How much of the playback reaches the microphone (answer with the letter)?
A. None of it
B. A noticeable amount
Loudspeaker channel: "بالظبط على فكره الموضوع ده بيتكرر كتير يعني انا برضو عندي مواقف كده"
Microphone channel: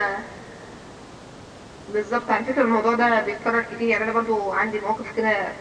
B